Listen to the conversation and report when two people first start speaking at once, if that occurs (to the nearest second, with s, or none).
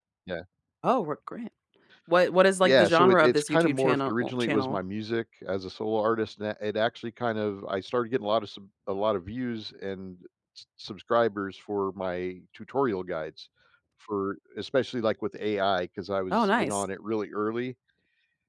3 s